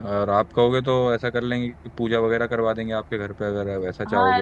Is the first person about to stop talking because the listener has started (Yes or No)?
Yes